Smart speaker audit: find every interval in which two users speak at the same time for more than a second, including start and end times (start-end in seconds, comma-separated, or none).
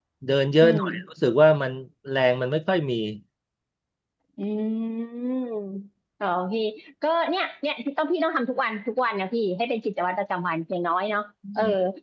none